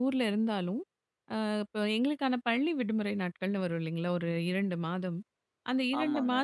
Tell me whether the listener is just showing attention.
Yes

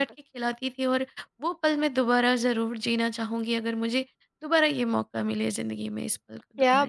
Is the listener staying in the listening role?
No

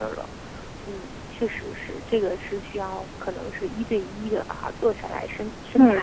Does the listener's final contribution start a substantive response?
Yes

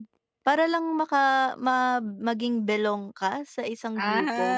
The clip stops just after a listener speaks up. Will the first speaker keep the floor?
No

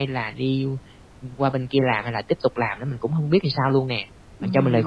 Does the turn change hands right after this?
Yes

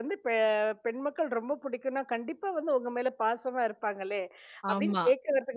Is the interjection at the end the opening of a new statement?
No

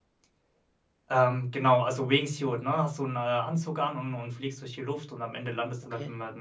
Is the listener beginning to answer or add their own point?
No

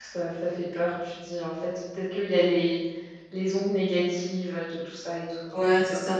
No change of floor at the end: No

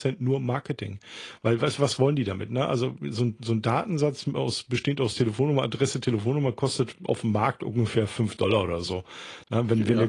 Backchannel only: Yes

